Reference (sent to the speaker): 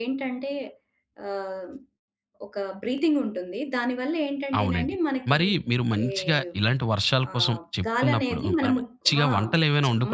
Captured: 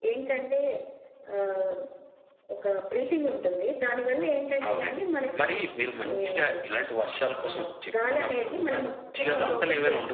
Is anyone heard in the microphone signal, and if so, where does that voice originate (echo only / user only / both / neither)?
both